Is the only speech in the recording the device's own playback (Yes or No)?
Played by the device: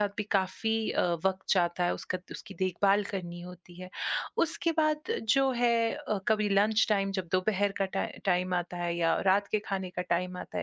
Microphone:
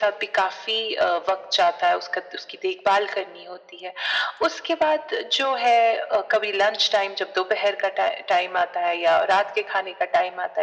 Yes